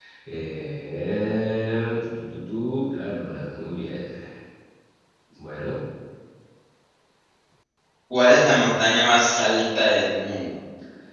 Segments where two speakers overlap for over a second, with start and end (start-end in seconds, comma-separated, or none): none